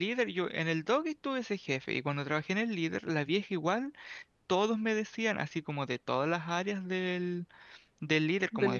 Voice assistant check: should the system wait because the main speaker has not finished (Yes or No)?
Yes